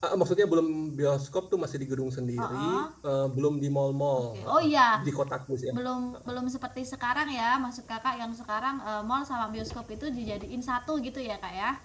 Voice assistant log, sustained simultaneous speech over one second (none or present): none